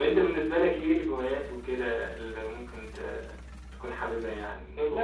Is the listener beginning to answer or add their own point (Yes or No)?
Yes